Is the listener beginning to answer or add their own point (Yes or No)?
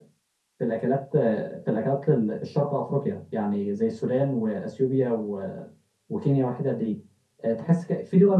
No